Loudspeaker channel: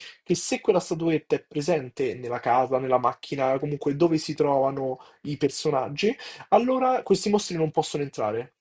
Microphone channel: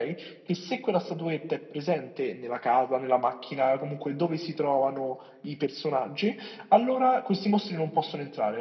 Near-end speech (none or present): none